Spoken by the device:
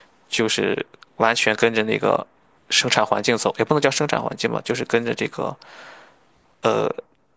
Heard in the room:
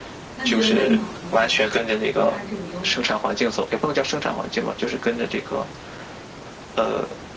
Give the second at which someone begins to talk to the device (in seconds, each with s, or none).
0.3 s